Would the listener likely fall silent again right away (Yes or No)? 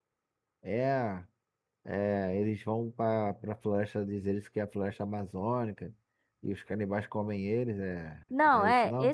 No